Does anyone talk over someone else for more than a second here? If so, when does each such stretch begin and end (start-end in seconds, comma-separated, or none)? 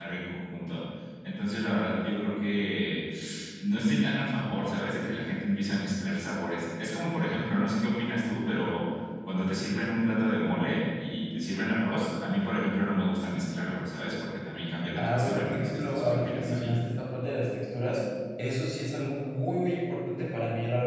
15.0-16.7